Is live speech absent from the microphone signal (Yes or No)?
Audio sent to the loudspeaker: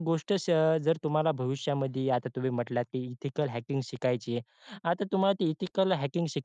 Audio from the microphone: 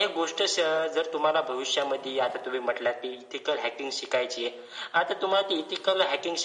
Yes